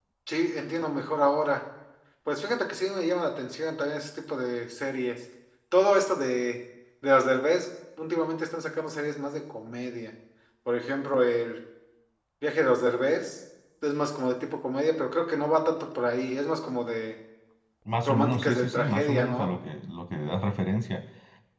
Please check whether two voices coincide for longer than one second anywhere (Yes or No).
Yes